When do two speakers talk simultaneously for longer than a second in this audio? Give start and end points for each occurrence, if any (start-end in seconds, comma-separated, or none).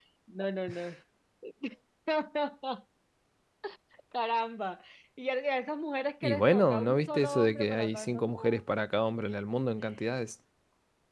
6.2-8.4